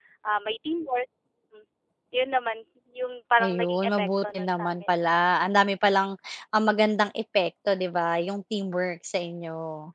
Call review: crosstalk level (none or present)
present